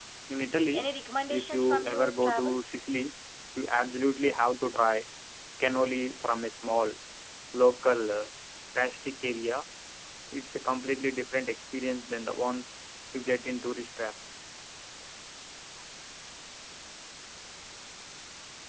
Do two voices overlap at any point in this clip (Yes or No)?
Yes